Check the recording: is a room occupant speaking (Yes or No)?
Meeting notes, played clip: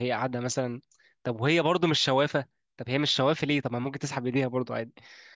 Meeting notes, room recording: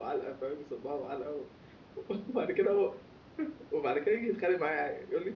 Yes